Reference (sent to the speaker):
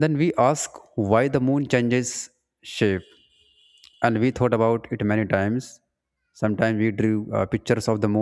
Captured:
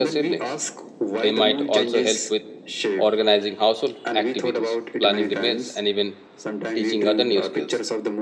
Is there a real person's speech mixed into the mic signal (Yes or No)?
Yes